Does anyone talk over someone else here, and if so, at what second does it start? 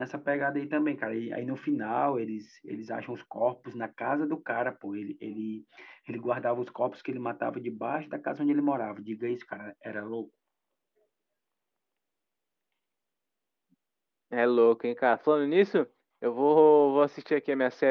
none

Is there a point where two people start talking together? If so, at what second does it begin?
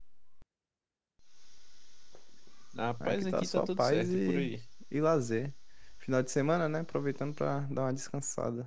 3.0 s

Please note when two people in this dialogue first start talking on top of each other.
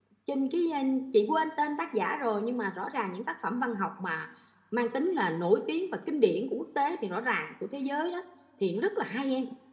none

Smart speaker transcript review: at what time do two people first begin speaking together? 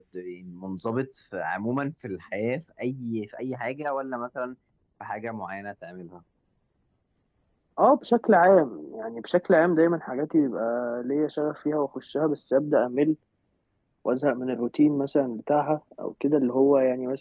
none

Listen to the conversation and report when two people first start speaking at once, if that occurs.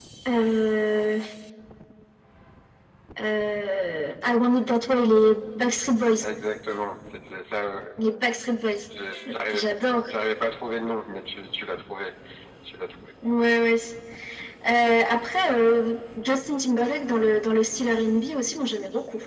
none

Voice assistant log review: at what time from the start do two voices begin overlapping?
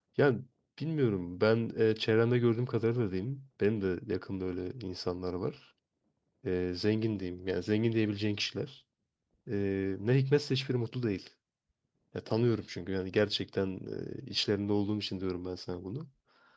none

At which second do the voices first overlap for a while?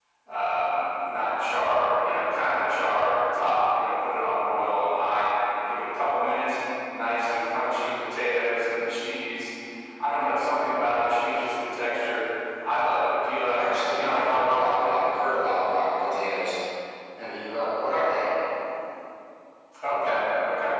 13.5 s

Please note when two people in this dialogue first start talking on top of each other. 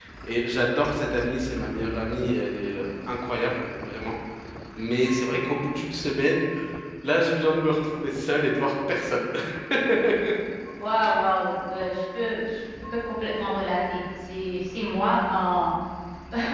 none

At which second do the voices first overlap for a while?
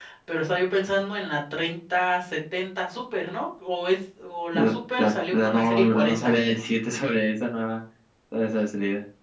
4.5 s

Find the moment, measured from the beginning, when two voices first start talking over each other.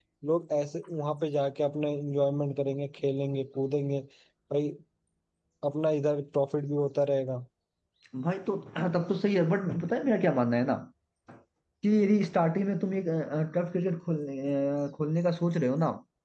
none

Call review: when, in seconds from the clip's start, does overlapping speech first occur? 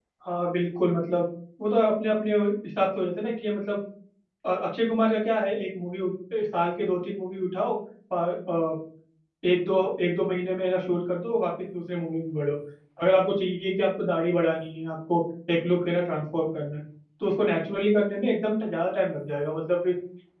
none

